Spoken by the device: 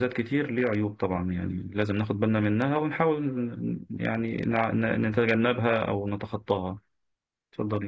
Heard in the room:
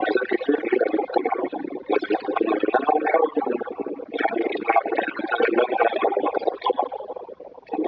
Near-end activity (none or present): none